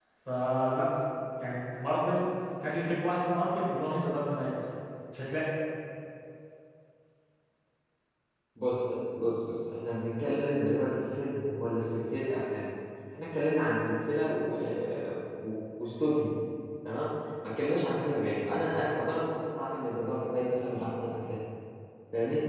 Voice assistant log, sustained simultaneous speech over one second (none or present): none